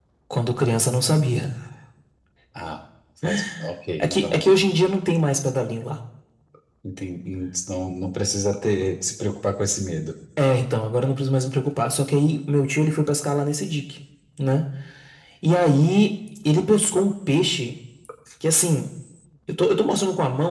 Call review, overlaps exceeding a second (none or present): none